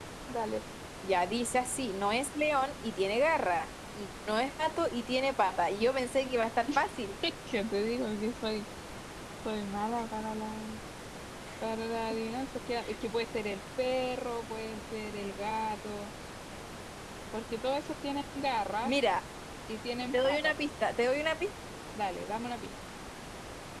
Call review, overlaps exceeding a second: none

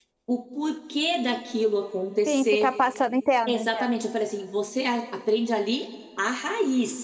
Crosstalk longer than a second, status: none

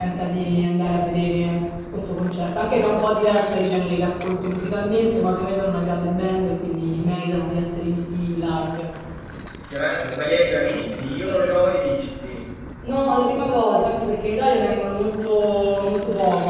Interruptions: none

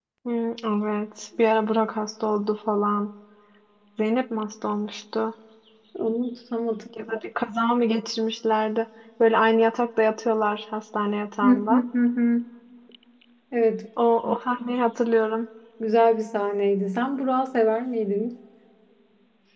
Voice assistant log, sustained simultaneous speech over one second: none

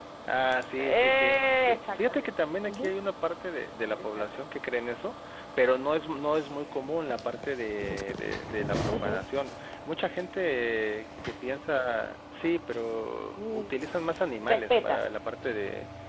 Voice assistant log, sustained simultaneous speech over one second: present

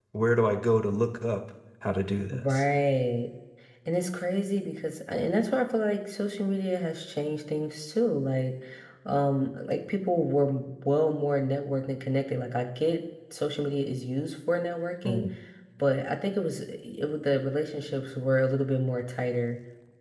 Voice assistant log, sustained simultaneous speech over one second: none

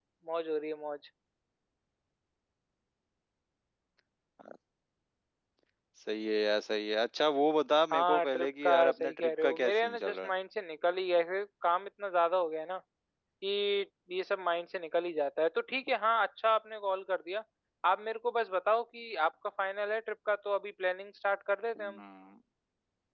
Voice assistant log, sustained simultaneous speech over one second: present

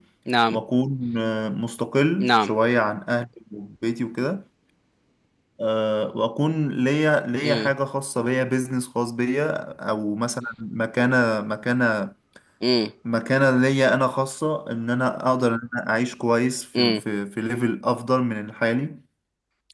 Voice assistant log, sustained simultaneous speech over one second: none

